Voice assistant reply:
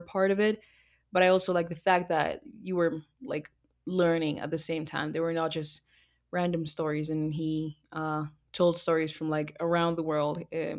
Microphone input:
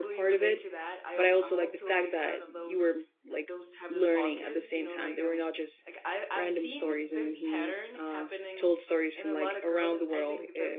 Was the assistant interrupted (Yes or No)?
Yes